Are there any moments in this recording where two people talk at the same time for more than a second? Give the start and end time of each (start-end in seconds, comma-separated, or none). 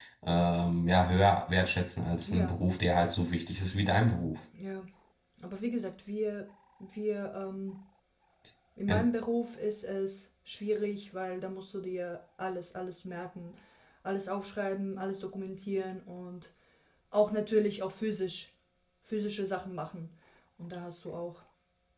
none